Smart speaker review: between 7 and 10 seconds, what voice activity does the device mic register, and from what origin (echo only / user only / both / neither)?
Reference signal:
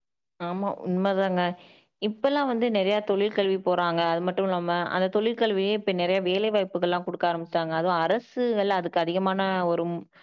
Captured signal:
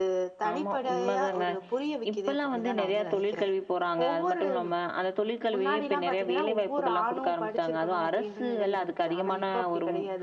both